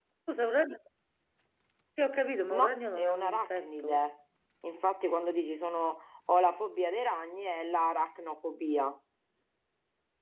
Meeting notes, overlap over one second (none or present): present